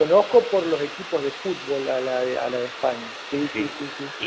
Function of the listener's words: taking over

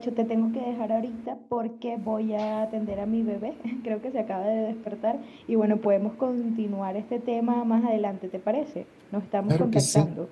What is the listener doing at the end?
taking over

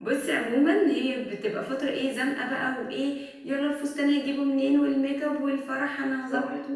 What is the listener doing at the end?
listening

